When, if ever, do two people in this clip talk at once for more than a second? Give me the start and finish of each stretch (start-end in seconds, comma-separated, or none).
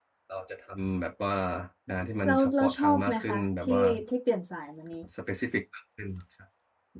2.2-3.8